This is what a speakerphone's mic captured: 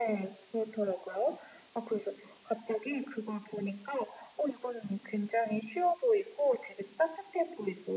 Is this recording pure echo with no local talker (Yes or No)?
Yes